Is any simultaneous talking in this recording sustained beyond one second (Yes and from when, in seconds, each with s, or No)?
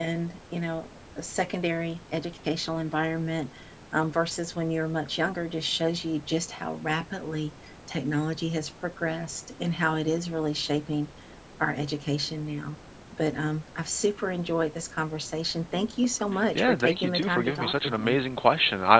Yes, from 16.6 s